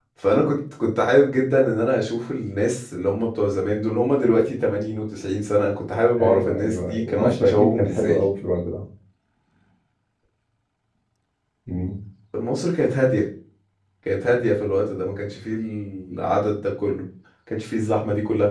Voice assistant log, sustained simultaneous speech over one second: present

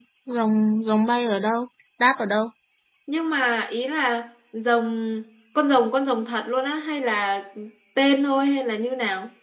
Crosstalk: none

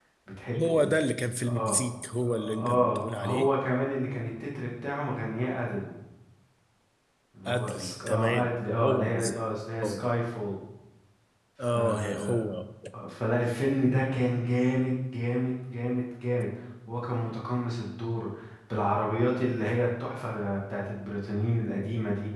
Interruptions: present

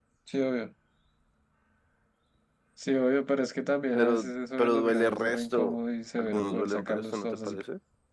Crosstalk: present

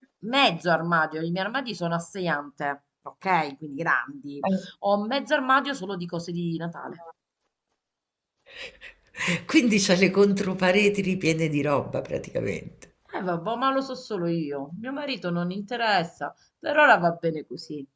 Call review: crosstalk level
none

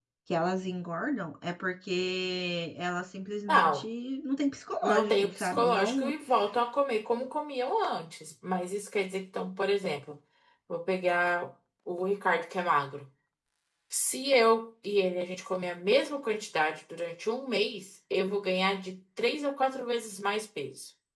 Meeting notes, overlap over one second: present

